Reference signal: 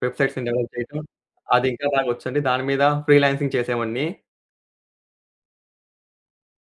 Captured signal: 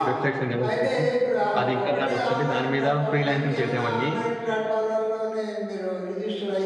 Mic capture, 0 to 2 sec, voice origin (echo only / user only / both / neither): both